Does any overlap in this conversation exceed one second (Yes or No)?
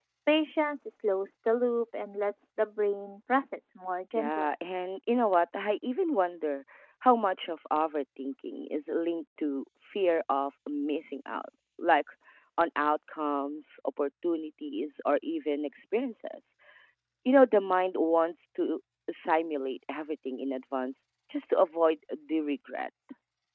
No